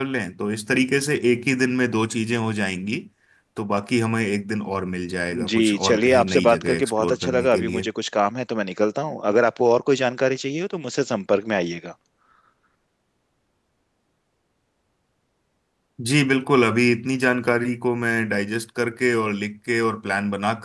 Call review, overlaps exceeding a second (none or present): present